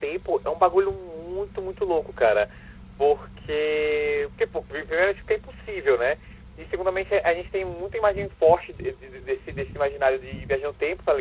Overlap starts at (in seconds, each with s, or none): none